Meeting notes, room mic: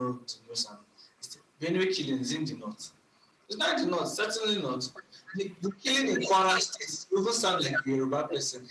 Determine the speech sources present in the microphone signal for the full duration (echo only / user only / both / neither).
echo only